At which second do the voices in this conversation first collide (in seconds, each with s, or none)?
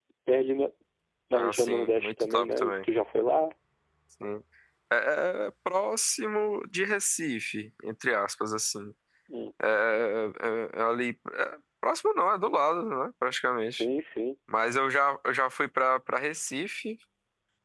1.3 s